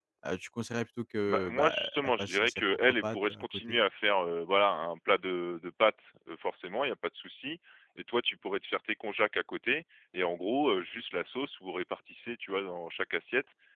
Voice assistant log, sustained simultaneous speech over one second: present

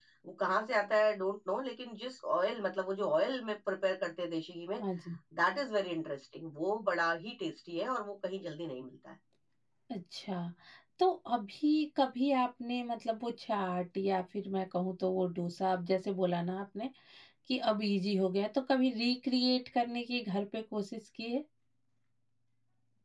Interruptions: none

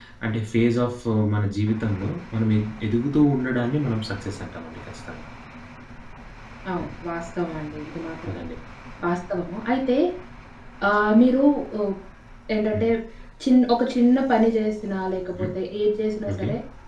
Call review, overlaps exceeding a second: none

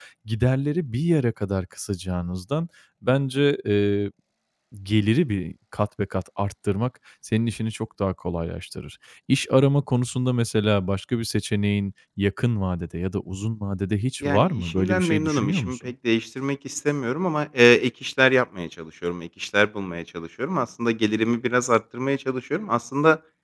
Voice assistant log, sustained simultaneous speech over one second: present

